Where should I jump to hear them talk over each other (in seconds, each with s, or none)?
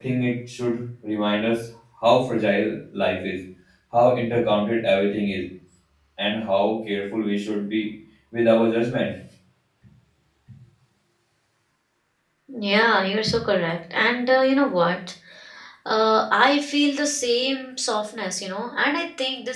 none